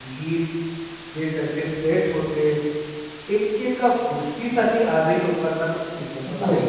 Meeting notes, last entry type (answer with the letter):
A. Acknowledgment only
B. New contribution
B